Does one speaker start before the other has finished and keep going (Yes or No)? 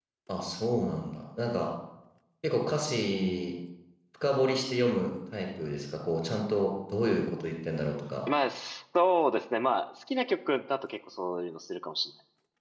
No